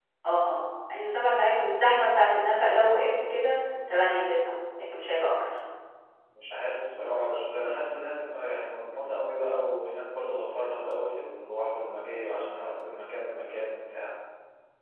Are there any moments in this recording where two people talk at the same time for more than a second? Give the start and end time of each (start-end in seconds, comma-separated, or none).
none